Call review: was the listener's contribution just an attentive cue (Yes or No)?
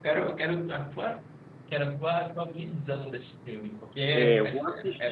No